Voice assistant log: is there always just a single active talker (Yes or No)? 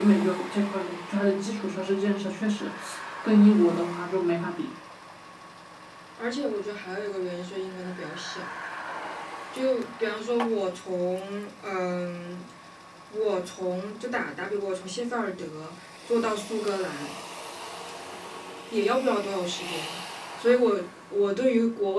Yes